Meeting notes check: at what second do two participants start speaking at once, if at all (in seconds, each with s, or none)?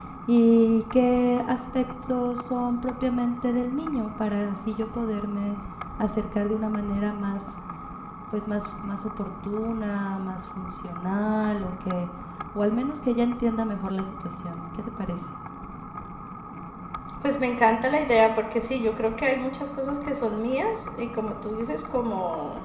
none